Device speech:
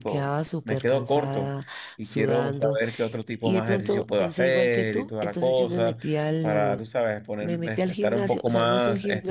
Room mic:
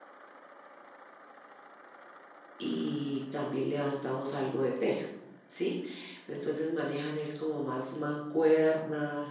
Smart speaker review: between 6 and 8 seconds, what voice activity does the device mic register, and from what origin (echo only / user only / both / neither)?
user only